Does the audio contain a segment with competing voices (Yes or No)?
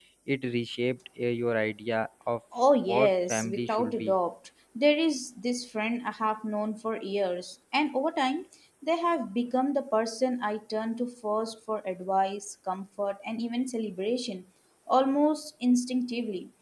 Yes